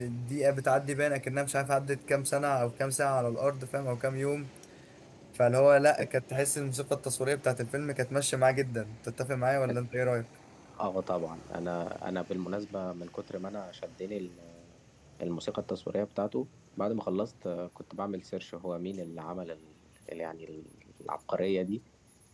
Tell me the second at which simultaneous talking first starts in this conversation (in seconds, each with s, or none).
none